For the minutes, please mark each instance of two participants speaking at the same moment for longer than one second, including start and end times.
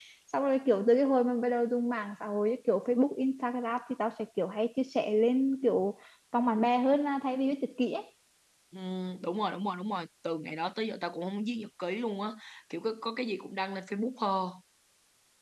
none

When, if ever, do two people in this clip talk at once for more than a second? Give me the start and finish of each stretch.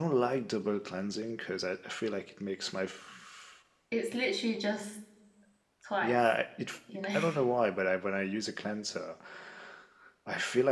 none

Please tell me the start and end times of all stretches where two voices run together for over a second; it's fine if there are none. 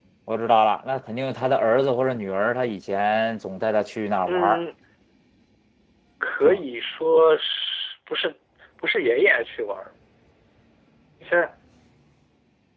none

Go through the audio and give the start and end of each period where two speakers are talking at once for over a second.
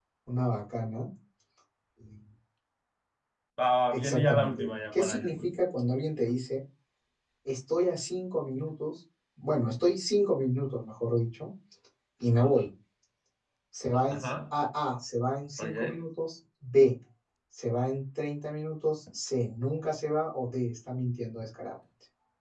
3.9-5.5

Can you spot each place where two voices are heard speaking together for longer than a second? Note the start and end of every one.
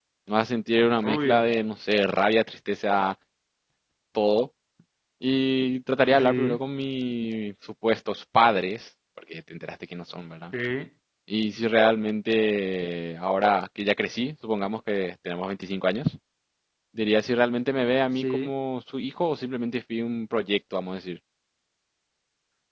none

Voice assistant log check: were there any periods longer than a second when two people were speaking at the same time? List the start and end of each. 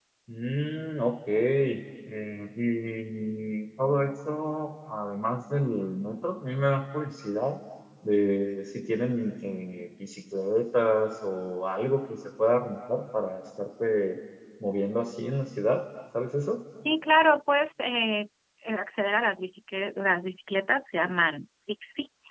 none

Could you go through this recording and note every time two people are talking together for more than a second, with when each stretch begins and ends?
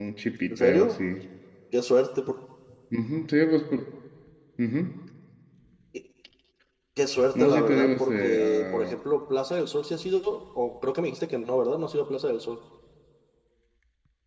7.3-9.0

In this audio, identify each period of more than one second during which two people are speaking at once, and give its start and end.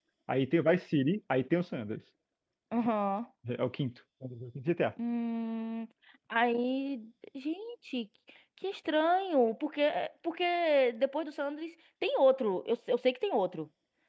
none

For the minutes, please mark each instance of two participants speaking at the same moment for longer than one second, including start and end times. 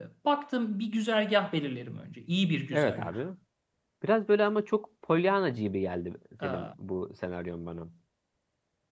none

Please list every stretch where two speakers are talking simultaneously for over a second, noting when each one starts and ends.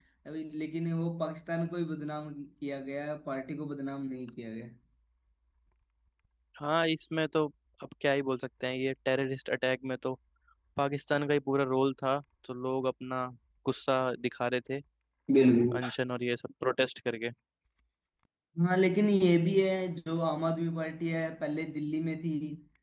none

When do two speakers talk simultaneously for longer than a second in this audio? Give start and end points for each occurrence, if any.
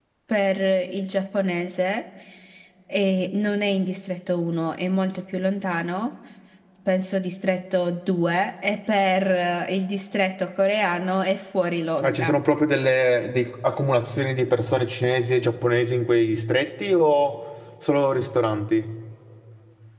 none

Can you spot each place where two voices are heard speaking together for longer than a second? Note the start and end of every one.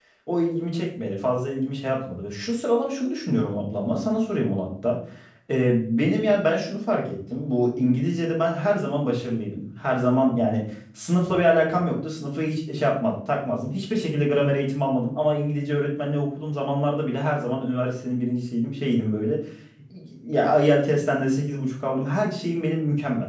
none

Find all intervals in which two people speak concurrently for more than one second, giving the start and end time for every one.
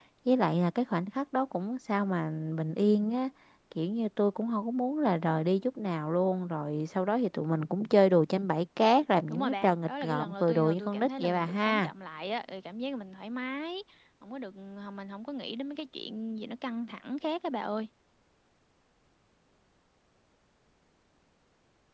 9.3-11.9

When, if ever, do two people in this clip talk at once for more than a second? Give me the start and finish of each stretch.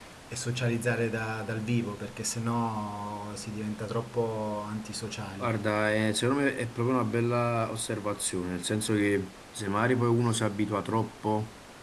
none

